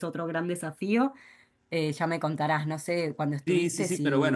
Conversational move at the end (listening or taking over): taking over